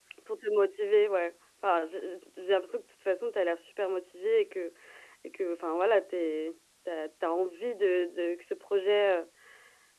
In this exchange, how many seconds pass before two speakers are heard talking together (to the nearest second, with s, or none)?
none